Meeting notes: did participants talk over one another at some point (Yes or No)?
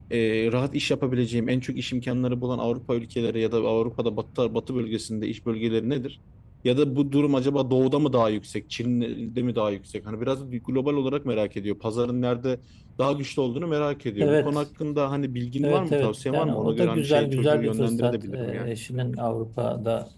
Yes